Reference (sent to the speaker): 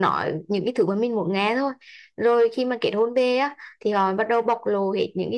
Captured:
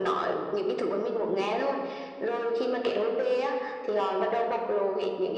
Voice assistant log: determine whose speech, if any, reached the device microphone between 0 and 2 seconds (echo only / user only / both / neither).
echo only